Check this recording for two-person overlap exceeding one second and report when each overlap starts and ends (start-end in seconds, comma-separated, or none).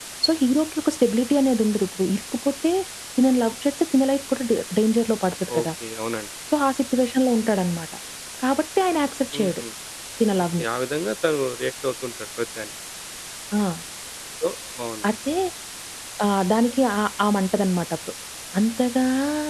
none